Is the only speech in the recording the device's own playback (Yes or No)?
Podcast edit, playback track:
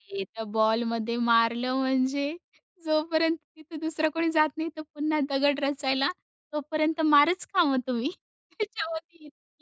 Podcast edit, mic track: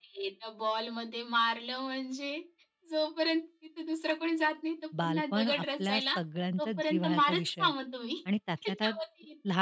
No